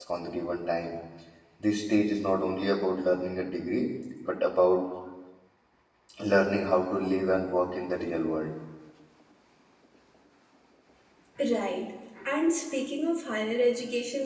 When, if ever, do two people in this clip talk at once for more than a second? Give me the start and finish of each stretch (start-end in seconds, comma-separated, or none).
none